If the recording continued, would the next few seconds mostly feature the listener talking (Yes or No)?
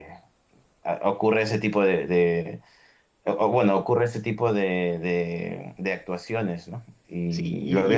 Yes